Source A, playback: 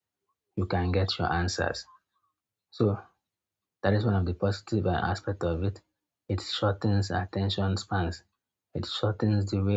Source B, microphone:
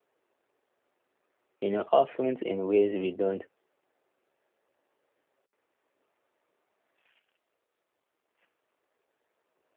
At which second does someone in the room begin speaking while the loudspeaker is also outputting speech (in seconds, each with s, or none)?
1.6 s